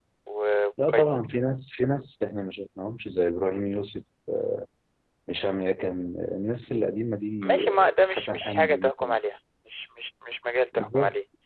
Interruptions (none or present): present